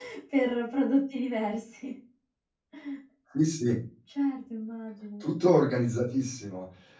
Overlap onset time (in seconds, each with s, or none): none